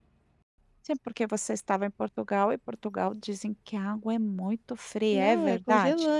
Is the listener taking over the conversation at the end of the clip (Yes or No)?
Yes